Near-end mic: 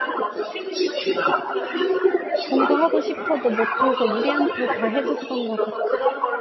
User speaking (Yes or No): Yes